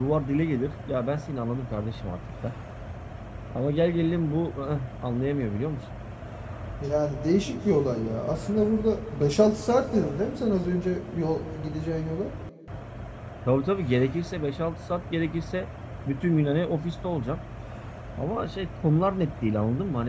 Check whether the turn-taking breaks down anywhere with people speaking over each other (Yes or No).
No